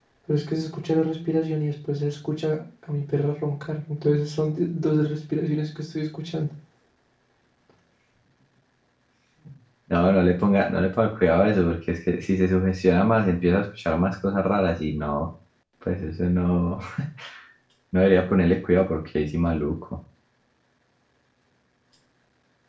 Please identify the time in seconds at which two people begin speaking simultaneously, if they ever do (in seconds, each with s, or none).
none